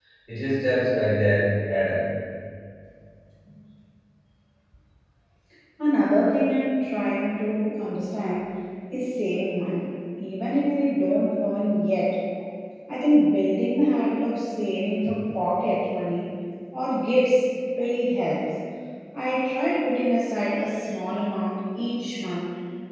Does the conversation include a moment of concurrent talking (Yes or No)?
No